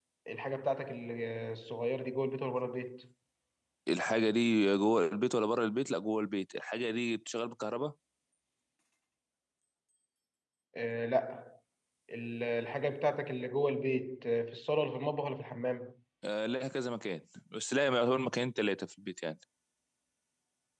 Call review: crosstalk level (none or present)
none